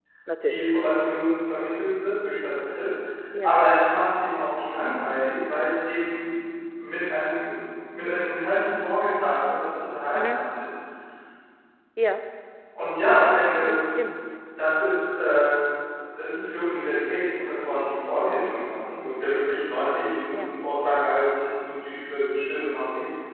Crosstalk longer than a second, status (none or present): none